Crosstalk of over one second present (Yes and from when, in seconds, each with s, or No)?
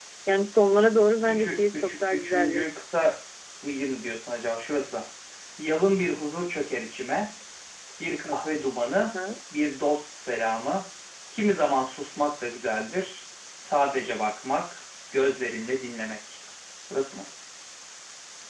Yes, from 1.3 s